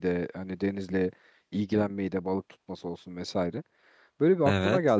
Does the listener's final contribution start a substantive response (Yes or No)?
No